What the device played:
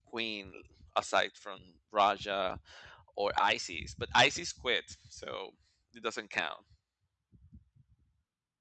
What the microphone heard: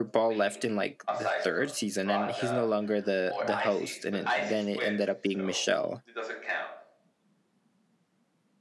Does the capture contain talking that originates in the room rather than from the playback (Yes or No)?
Yes